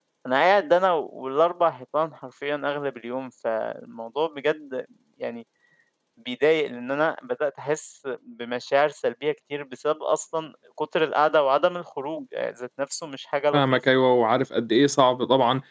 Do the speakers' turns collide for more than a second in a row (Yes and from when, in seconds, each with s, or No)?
No